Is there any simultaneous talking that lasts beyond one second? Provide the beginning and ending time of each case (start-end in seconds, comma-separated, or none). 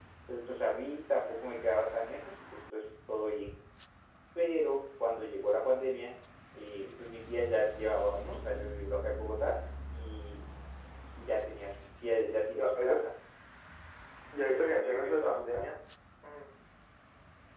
14.4-15.7